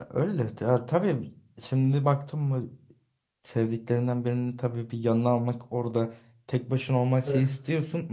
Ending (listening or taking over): listening